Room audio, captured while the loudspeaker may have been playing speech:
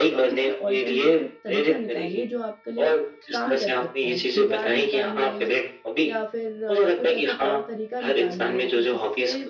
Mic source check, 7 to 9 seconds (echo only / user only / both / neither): both